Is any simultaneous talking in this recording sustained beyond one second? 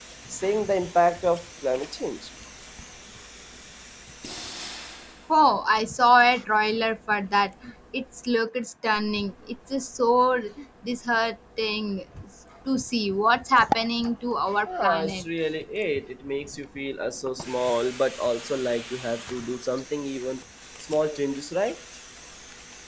No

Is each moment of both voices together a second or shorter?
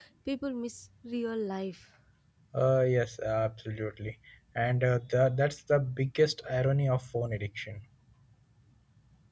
Yes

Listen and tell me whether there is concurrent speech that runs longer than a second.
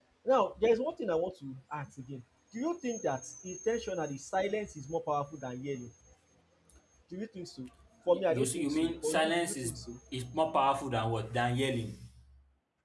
Yes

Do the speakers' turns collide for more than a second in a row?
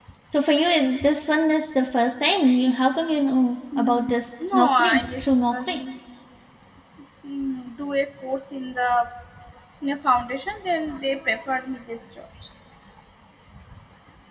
Yes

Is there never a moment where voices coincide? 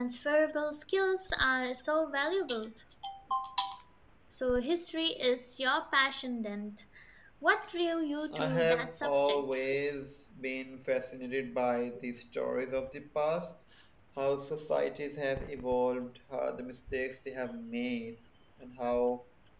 No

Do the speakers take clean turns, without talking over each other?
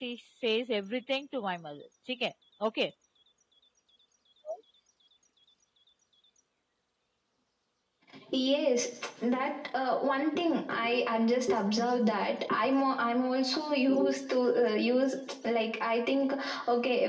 Yes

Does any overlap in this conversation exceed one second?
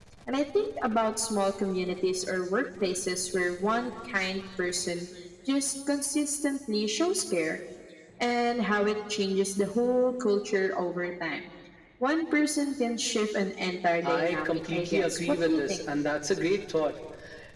Yes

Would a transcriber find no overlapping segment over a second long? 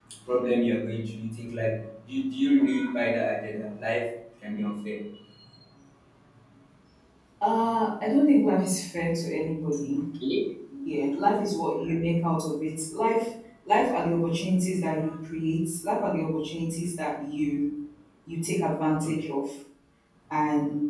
Yes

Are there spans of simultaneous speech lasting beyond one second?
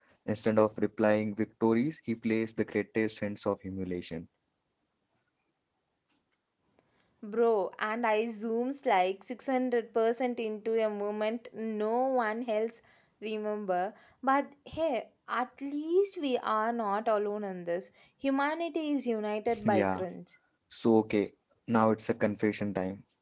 No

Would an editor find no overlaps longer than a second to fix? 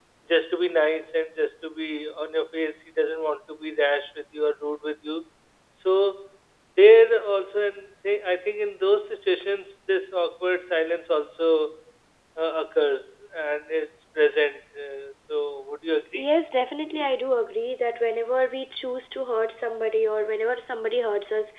Yes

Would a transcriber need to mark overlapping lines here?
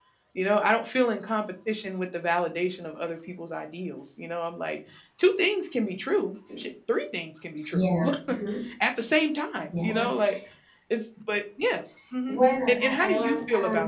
Yes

